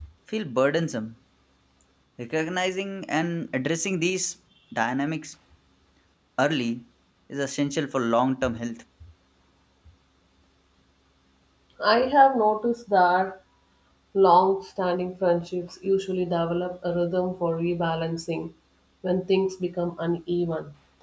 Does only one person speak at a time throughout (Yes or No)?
Yes